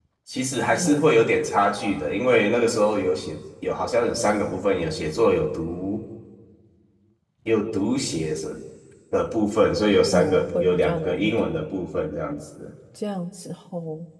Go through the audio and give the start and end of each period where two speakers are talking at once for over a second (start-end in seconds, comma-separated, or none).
10.1-11.3